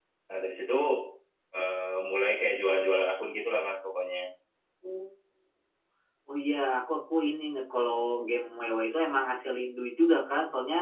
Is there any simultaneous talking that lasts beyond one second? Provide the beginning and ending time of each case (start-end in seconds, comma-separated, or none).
none